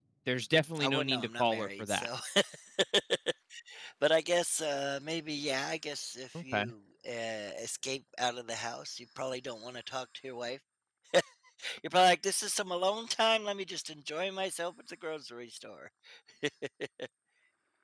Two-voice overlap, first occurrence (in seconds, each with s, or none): 0.8 s